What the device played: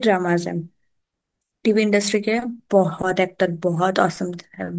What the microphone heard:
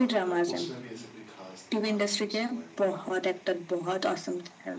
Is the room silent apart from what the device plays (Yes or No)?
No